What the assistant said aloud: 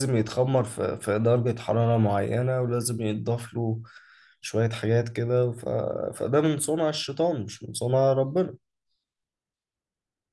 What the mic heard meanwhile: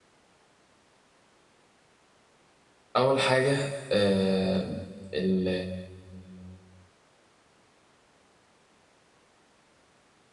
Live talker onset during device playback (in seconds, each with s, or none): 3.0 s